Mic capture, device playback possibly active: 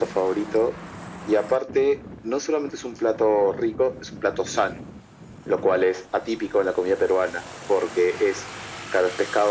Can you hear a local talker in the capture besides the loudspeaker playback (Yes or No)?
No